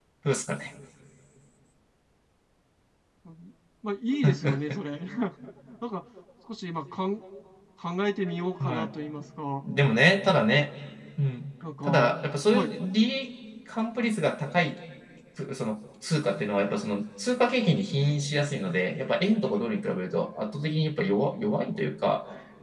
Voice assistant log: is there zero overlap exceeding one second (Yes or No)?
Yes